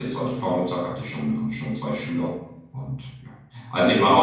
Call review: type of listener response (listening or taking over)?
listening